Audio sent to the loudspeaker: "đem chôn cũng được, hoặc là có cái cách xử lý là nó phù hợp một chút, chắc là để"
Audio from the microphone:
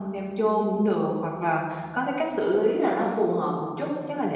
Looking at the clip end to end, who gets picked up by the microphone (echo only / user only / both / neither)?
echo only